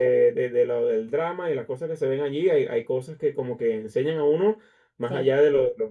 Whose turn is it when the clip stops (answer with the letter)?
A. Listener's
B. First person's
B